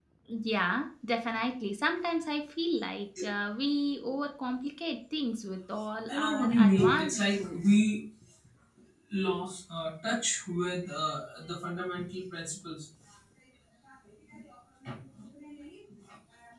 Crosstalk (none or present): present